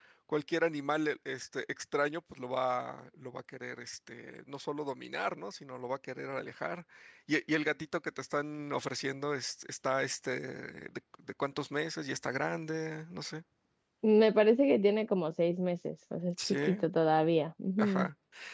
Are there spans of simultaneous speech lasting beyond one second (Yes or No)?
No